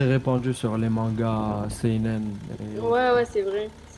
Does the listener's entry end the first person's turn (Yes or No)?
Yes